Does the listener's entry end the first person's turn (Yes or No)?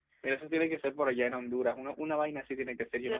Yes